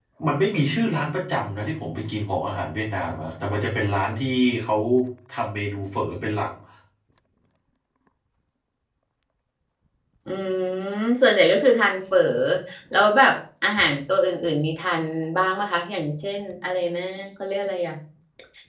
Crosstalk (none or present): none